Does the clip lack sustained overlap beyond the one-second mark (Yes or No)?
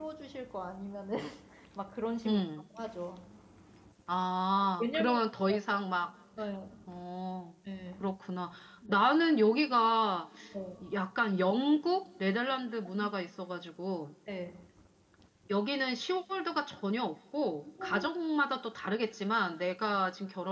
Yes